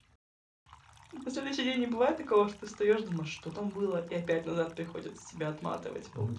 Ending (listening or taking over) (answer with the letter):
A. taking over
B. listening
A